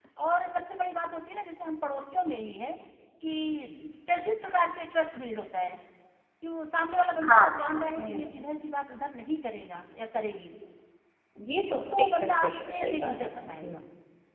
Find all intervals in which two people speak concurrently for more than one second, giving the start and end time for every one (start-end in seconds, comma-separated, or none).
12.0-13.7